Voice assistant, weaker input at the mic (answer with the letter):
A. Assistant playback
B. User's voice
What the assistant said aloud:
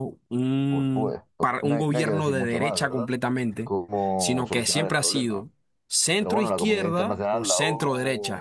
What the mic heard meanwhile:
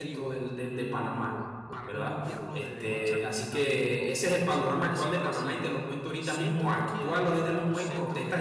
A